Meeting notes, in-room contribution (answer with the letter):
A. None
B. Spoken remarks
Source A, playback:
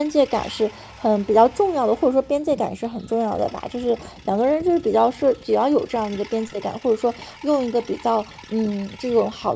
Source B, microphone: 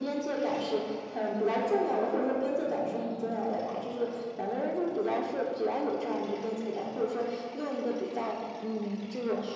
A